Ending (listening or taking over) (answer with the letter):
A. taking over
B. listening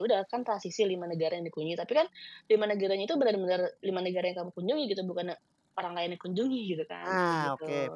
A